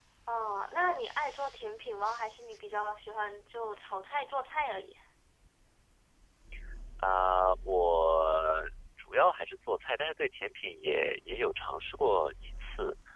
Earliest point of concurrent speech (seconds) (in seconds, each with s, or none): none